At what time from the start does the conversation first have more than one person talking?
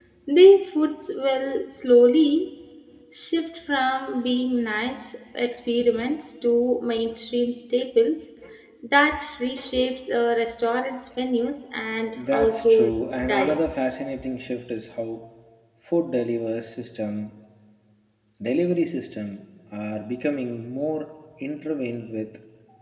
12.1 s

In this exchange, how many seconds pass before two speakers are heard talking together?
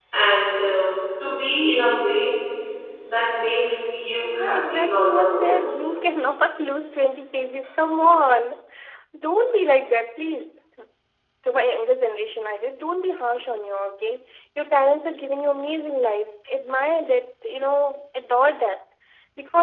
4.4 s

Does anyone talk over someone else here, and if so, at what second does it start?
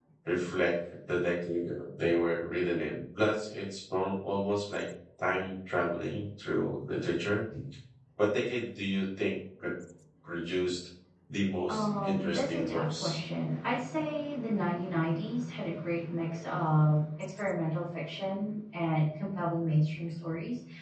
11.7 s

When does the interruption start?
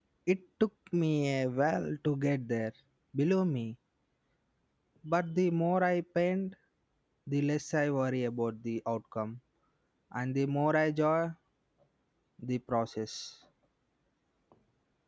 none

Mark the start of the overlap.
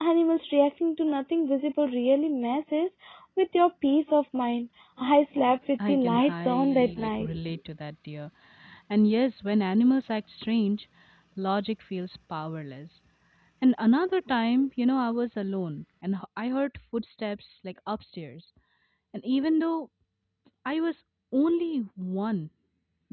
5.8 s

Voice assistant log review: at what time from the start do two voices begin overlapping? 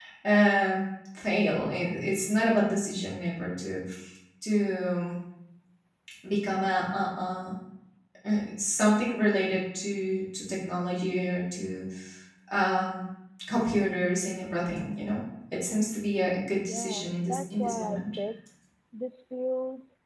16.7 s

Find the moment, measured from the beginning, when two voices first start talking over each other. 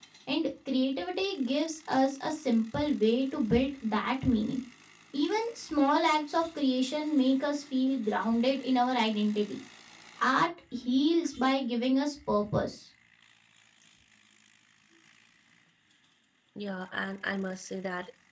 none

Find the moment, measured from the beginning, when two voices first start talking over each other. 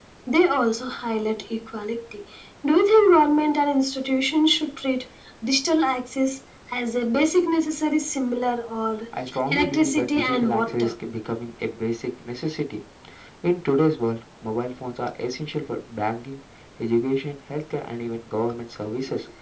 9.5 s

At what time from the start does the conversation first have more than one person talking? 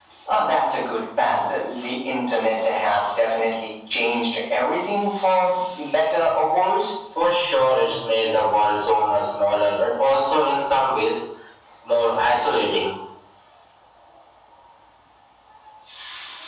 none

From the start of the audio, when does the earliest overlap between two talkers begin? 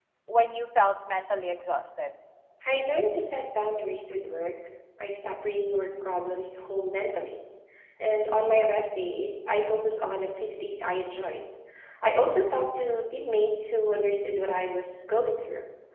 none

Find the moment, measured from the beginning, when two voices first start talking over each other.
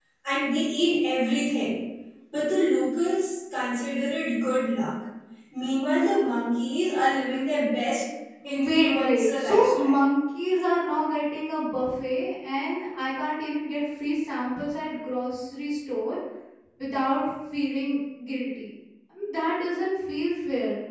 8.4 s

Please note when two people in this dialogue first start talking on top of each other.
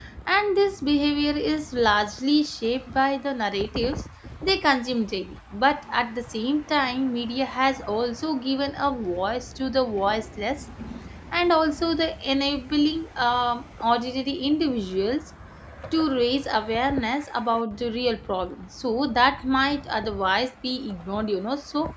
none

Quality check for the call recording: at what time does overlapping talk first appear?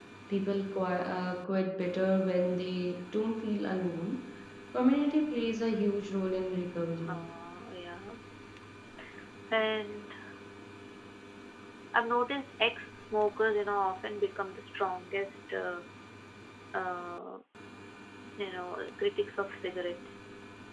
none

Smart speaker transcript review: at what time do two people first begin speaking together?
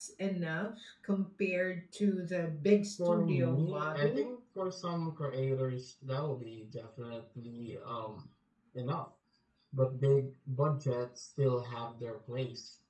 3.0 s

